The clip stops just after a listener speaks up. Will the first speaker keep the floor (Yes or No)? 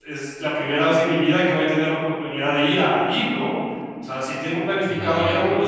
Yes